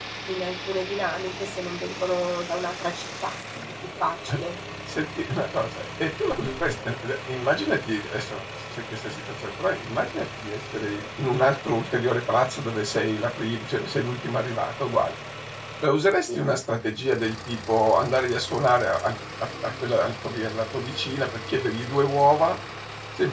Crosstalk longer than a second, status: none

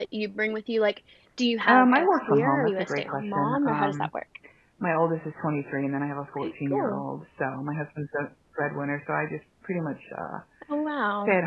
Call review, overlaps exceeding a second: present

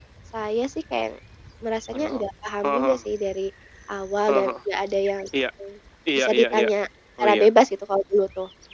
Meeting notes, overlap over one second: none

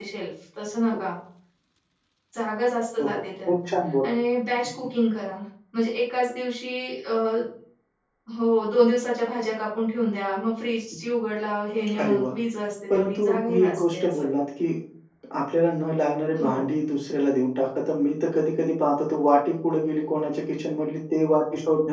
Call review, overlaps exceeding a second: present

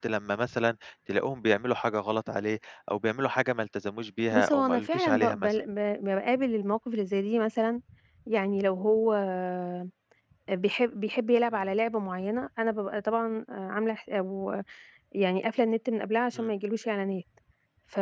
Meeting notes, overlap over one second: present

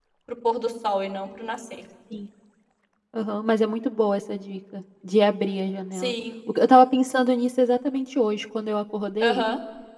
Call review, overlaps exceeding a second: none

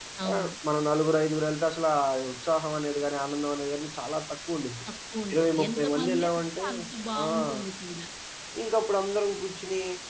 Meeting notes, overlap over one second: present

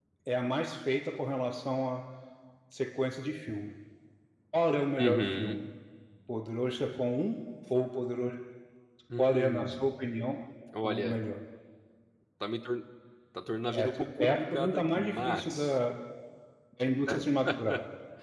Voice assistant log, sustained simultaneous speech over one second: present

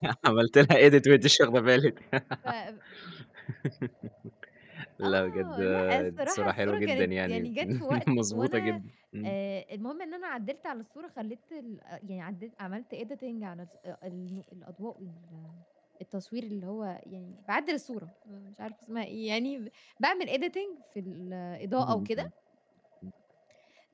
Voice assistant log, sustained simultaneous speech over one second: present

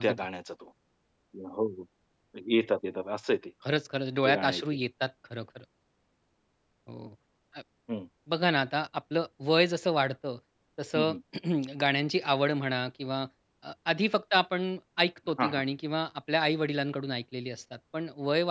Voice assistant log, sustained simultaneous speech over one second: none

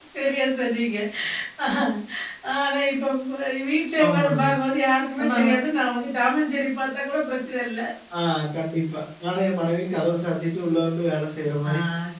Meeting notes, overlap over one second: none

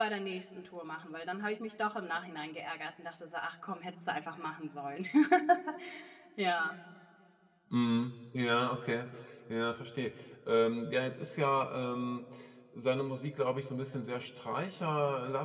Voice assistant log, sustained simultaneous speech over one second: none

